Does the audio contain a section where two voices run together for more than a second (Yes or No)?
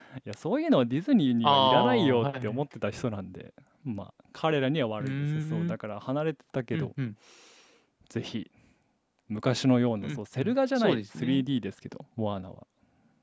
Yes